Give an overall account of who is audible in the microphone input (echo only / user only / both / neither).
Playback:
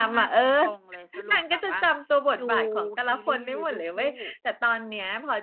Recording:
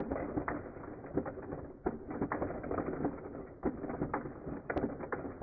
neither